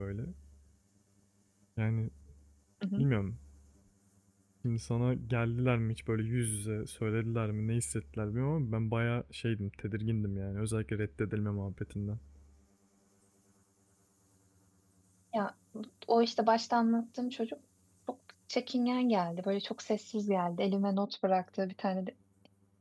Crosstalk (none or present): none